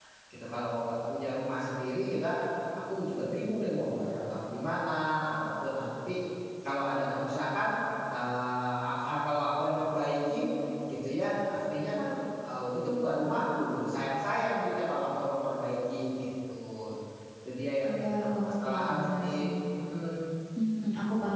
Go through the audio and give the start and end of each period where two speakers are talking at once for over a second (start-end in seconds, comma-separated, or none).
18.0-19.5